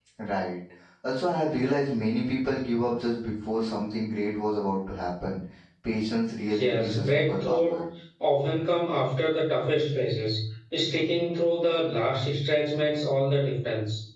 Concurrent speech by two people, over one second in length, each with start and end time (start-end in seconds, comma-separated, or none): 6.6-7.8